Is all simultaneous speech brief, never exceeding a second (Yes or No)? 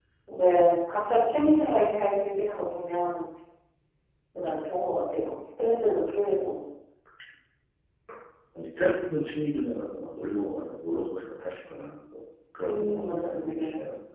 No